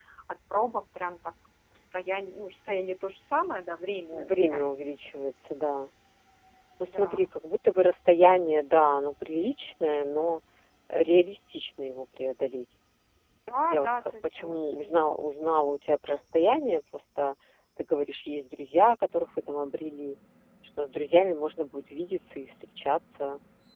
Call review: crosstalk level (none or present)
present